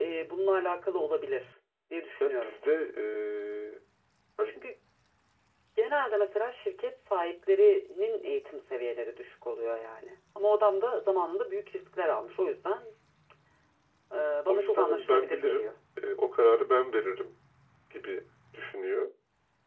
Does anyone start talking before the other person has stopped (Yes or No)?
Yes